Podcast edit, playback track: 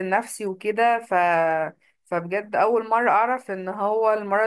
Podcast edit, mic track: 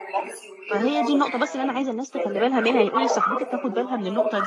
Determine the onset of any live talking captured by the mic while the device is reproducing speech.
0.7 s

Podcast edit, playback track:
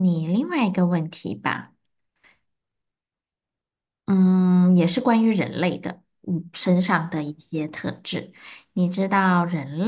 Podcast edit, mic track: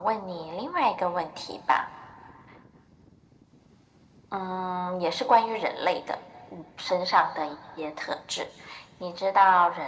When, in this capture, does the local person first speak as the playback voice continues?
none

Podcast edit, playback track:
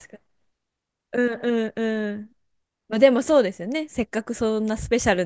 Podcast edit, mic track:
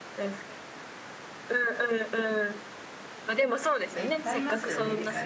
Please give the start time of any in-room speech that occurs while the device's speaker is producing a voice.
3.9 s

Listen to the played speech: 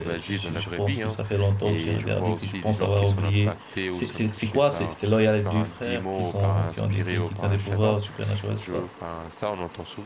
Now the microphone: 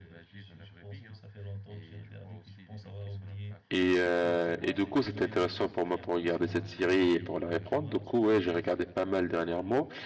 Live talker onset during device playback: 3.7 s

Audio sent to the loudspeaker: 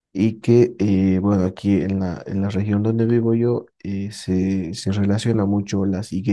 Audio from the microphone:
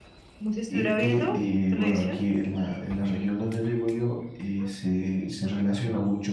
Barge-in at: 0.4 s

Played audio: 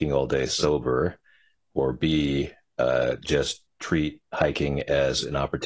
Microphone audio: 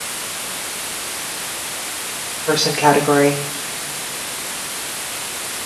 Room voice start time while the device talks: 2.5 s

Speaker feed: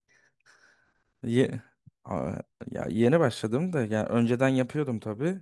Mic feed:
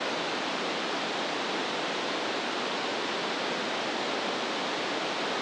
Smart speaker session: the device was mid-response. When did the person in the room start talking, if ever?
none

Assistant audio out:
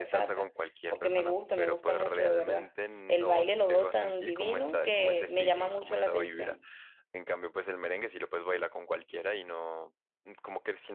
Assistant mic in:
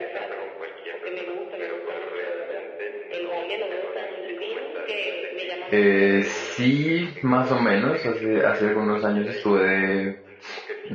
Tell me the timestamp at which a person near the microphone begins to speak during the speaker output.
5.7 s

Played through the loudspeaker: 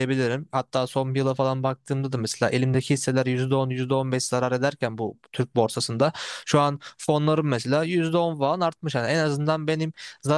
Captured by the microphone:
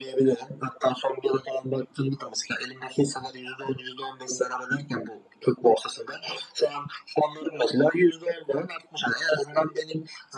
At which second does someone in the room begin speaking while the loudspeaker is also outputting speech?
none

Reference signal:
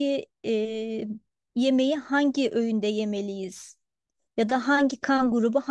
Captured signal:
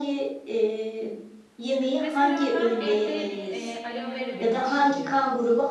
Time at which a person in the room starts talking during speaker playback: 2.0 s

